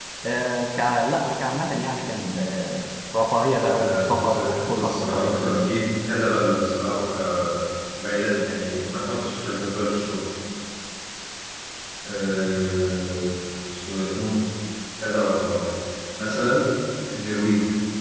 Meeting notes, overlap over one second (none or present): present